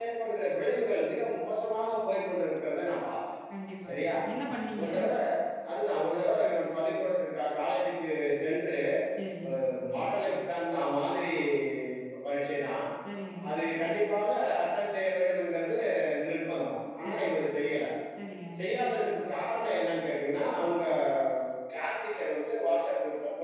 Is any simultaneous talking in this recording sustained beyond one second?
No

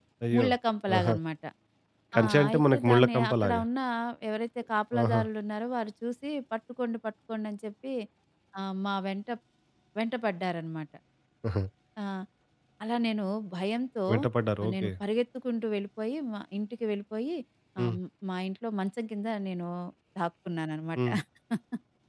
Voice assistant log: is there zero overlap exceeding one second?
No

